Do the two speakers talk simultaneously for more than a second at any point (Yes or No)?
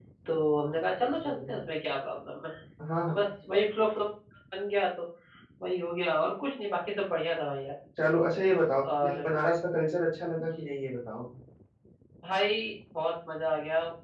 No